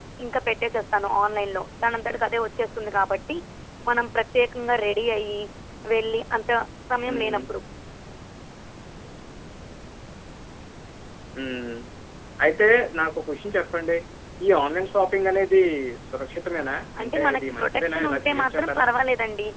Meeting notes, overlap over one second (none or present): present